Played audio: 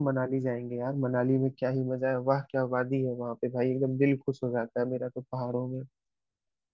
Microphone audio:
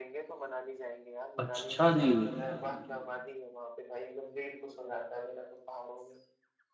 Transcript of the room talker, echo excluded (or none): अच्छा जी